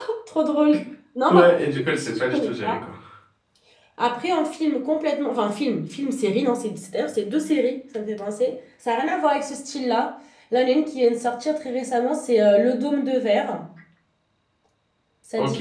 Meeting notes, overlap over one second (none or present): present